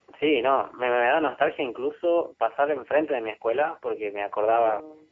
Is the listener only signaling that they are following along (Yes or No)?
Yes